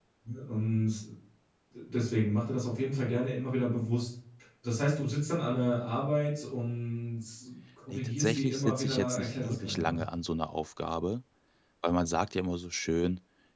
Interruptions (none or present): present